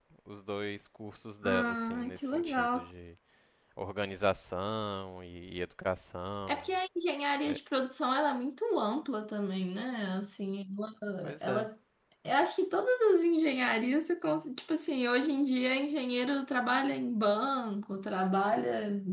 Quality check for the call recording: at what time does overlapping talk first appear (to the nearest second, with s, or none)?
1 s